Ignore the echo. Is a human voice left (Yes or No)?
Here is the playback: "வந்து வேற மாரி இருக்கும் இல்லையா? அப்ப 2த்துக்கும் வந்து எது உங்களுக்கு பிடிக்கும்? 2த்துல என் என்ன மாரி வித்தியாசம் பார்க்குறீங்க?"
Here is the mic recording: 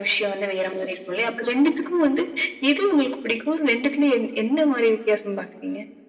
No